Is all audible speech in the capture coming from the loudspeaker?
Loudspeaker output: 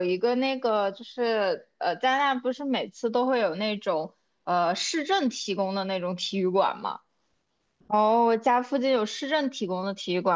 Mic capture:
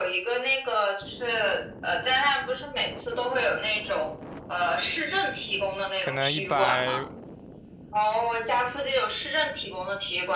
No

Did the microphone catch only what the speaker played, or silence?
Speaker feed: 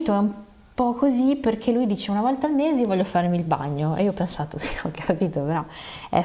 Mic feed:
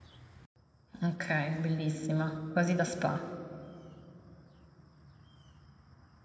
No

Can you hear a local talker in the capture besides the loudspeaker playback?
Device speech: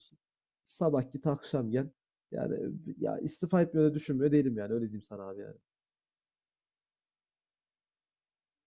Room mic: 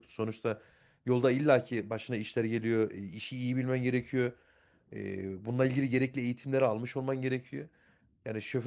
Yes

